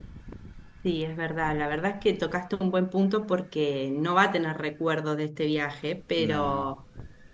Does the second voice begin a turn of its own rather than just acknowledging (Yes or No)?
No